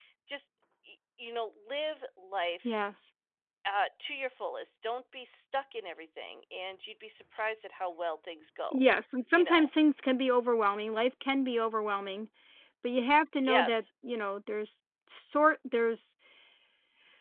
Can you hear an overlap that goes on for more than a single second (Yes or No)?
No